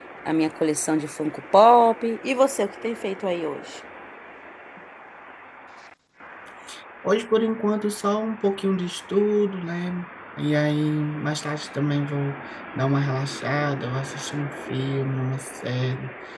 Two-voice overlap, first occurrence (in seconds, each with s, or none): none